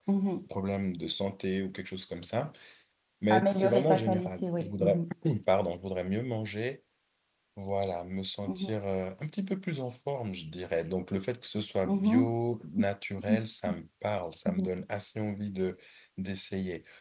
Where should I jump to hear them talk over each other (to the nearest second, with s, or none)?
3 s